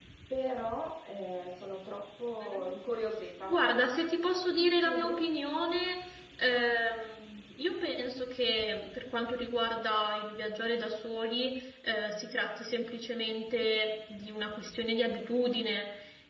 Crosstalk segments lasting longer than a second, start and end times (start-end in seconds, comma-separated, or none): none